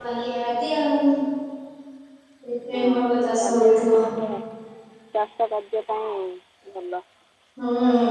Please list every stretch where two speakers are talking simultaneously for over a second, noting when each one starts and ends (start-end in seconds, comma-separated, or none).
2.8-4.0